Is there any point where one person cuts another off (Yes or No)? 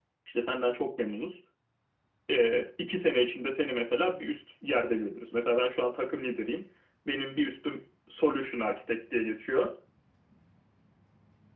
No